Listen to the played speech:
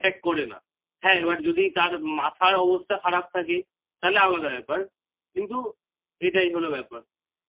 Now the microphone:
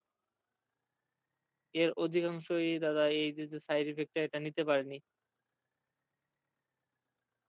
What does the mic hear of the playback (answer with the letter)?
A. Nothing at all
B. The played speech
A